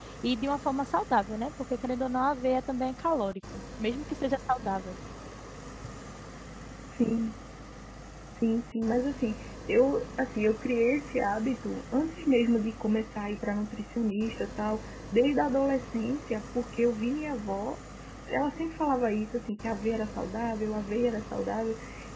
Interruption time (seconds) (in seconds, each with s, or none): none